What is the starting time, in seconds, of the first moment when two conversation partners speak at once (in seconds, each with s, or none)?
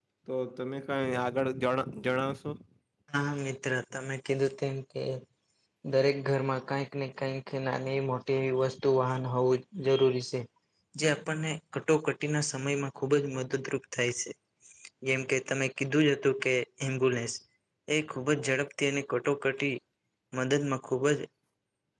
none